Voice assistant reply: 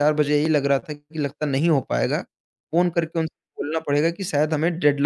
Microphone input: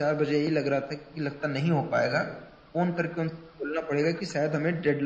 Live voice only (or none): none